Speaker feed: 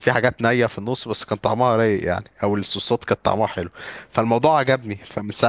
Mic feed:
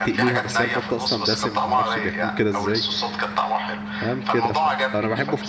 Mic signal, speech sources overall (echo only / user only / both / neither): both